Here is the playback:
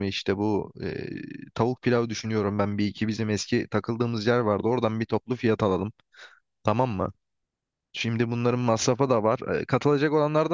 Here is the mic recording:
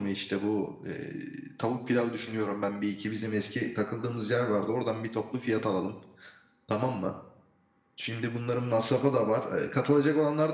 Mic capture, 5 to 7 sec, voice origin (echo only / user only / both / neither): echo only